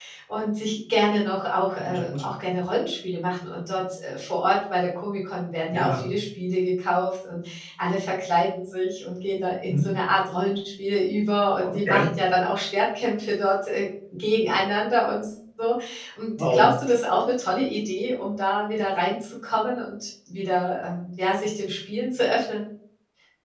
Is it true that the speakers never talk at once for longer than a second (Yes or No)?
Yes